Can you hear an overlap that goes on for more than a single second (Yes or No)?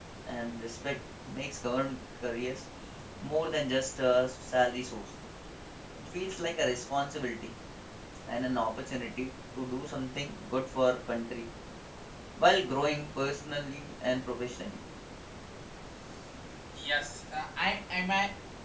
No